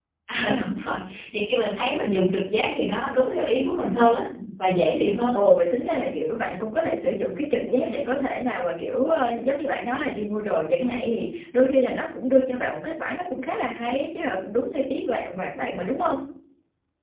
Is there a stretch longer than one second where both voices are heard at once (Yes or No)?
No